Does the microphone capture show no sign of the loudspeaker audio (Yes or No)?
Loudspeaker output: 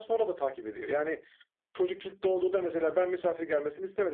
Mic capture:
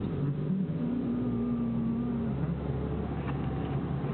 Yes